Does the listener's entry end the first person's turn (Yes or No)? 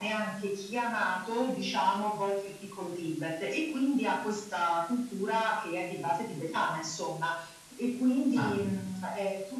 No